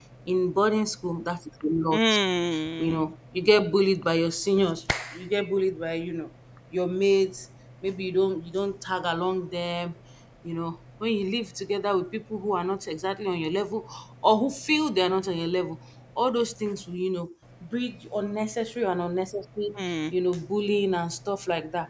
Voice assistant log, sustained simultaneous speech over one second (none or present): none